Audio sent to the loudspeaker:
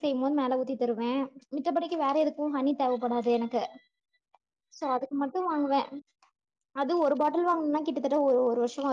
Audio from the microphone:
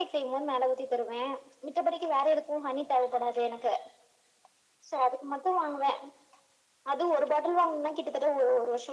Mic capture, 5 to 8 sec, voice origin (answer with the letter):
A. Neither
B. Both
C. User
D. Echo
D